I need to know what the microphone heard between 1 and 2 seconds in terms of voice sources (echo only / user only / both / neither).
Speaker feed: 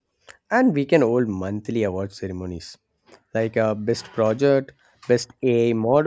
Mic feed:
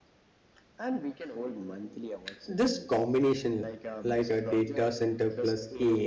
echo only